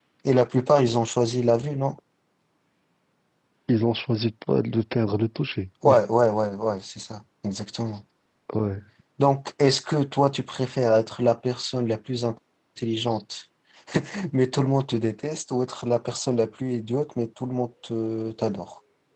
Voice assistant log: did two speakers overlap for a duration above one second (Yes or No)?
No